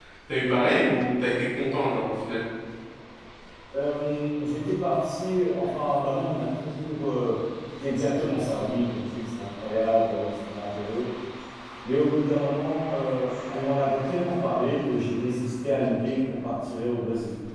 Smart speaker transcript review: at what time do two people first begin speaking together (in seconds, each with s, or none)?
none